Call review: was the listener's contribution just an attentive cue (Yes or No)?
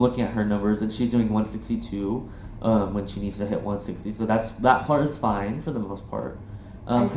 Yes